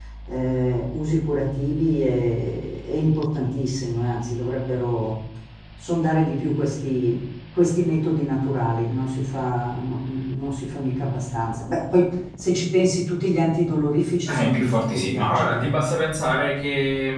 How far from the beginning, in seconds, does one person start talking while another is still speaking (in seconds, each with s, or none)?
14.2 s